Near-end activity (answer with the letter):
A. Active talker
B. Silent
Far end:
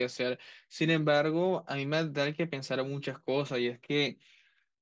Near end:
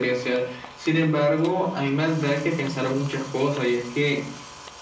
B